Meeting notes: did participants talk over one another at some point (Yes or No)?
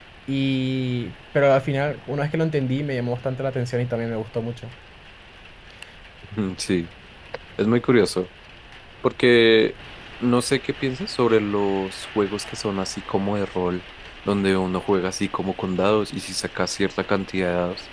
No